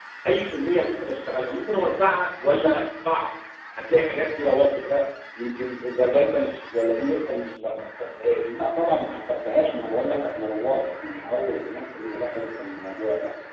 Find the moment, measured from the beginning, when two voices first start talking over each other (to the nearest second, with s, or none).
none